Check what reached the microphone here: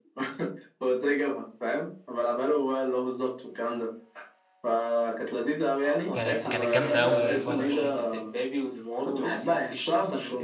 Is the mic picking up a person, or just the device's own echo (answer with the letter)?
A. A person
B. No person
A